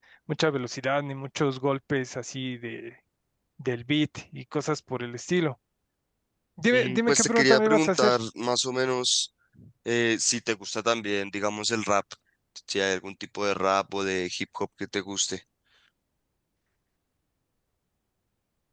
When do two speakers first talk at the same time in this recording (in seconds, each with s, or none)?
6.7 s